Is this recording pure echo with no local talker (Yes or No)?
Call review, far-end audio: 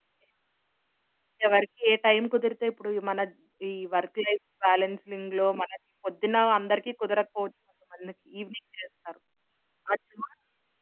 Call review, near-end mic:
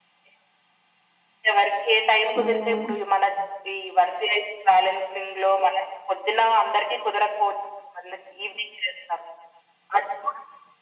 No